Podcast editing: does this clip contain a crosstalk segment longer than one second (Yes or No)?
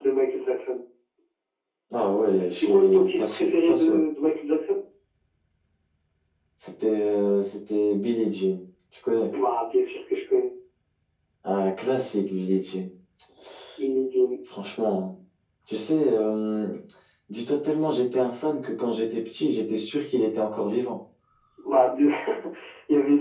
Yes